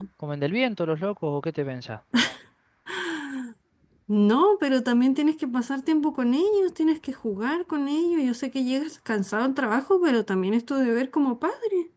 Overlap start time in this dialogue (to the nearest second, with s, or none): none